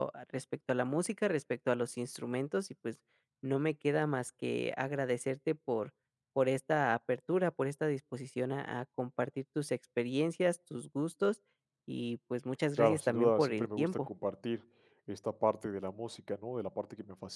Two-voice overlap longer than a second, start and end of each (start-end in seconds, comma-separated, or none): 12.8-14.1